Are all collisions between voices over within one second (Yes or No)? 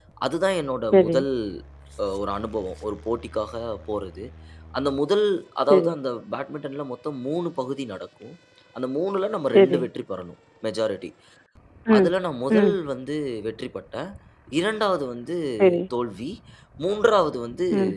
Yes